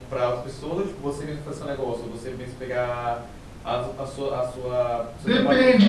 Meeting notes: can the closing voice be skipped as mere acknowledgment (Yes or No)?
No